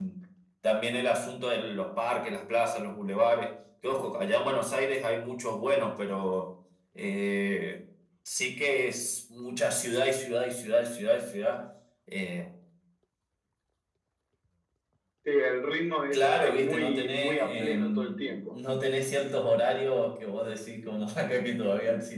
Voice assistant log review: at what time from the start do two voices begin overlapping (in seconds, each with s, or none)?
16.1 s